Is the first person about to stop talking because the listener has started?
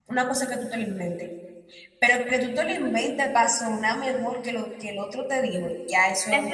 Yes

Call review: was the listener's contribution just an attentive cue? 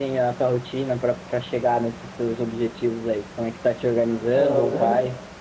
Yes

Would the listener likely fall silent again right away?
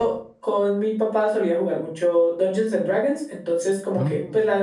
Yes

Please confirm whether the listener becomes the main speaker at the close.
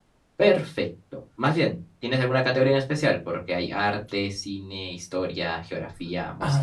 Yes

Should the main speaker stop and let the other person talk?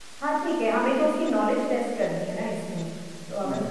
Yes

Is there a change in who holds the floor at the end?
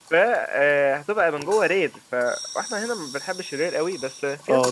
Yes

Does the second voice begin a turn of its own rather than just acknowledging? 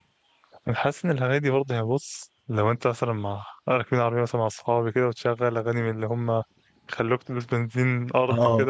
No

